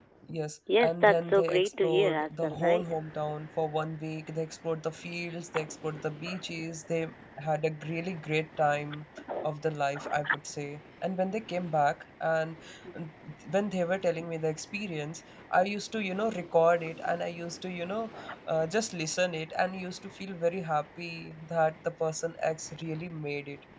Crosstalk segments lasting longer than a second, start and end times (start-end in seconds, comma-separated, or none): 0.8-2.9